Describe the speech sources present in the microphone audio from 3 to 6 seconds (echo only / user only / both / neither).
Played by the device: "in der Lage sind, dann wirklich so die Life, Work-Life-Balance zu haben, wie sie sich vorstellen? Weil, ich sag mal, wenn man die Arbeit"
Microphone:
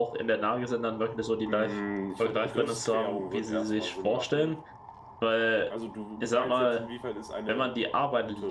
both